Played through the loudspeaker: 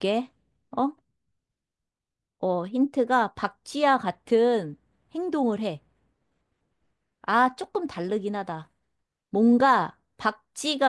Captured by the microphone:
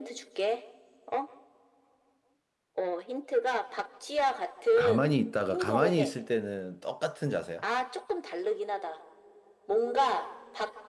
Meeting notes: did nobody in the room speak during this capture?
No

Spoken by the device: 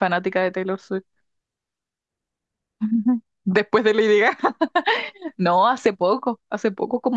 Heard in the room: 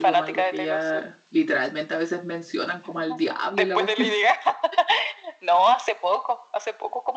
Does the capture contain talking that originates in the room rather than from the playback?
Yes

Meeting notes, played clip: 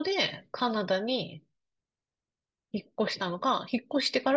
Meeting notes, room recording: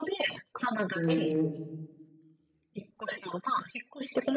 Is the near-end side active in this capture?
Yes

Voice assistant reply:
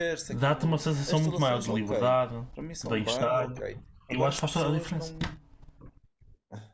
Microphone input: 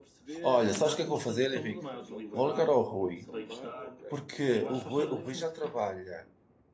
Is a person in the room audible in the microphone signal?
Yes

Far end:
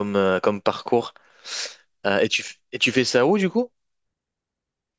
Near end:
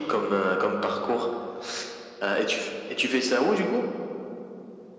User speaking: No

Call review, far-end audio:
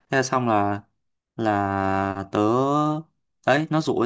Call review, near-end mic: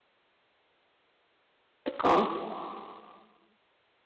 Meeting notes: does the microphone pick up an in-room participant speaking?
Yes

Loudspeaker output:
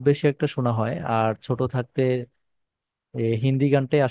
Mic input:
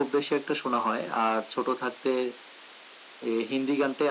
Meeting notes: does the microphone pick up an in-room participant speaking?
No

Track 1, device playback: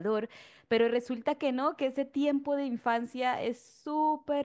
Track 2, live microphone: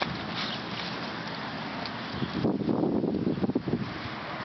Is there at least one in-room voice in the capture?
No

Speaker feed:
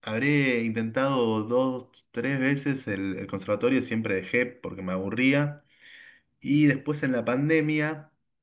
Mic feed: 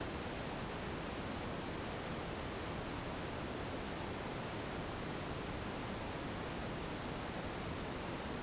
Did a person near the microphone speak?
No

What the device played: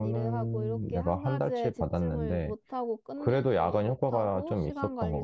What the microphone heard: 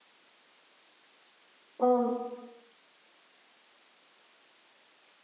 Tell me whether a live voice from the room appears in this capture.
Yes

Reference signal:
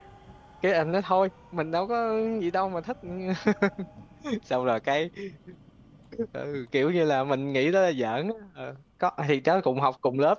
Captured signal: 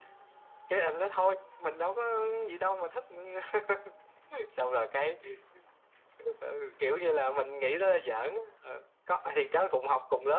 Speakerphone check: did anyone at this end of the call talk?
No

